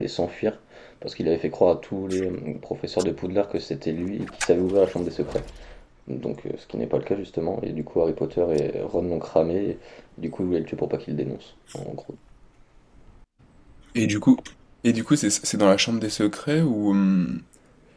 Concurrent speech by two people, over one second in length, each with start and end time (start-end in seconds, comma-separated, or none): none